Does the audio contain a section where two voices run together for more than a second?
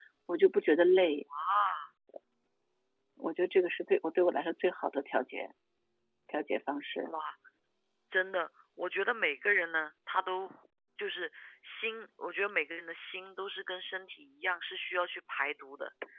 No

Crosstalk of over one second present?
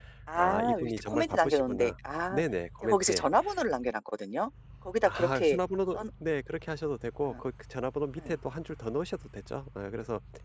Yes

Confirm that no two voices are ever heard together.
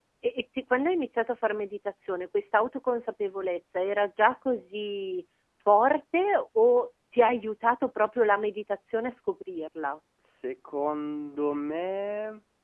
Yes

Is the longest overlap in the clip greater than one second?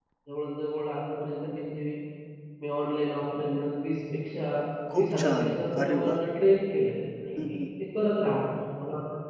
Yes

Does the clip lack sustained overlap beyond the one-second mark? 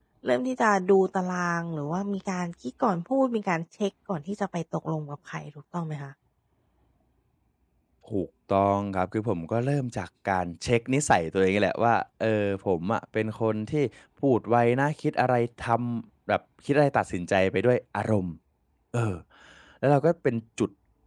Yes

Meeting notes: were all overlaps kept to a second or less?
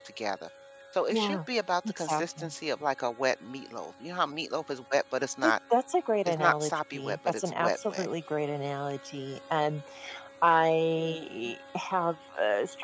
No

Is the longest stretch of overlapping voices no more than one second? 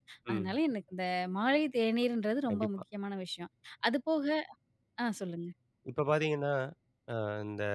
Yes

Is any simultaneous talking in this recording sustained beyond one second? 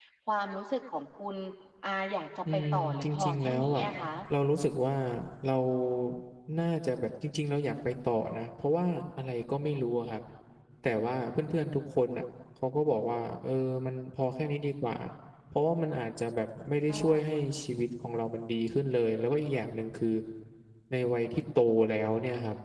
Yes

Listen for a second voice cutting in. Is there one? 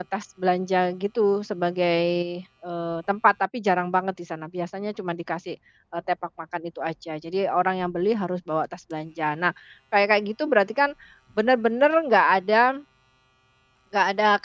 No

